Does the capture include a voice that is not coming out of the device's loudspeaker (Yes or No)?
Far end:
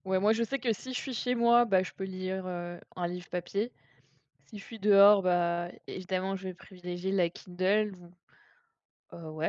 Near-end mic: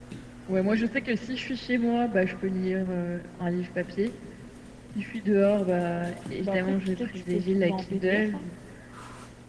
Yes